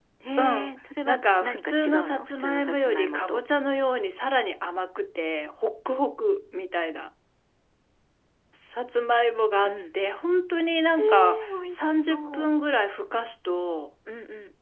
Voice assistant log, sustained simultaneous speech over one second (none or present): present